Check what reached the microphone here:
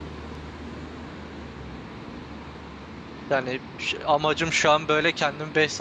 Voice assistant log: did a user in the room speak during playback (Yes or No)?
Yes